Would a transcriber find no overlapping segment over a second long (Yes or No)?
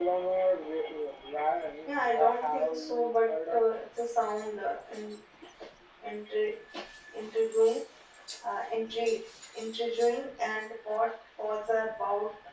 No